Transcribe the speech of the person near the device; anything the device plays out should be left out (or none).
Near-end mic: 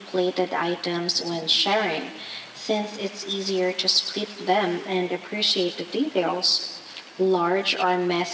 none